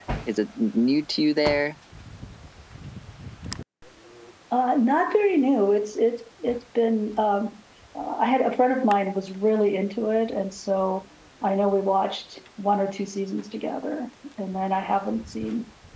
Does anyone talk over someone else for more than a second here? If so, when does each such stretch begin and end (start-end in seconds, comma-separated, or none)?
none